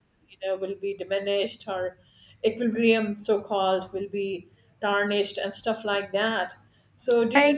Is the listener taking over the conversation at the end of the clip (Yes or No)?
Yes